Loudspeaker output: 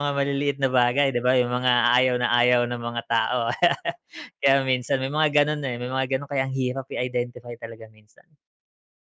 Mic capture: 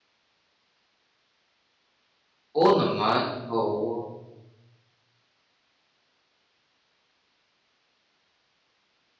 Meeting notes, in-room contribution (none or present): present